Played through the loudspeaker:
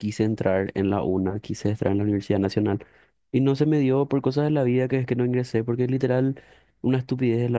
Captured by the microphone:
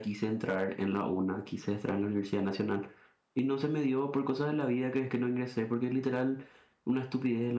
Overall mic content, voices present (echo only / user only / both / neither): echo only